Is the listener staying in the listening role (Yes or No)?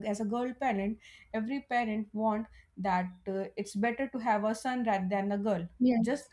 Yes